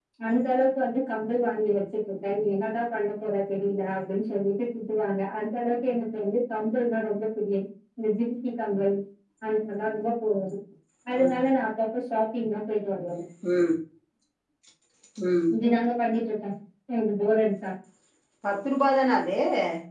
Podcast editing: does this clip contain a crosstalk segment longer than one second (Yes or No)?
No